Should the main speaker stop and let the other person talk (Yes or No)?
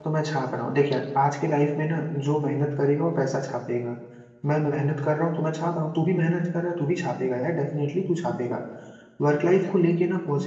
No